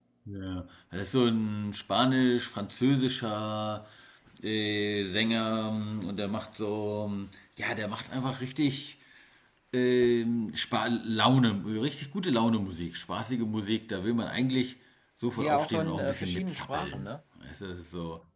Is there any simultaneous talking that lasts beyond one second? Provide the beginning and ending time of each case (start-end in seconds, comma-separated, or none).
15.4-17.1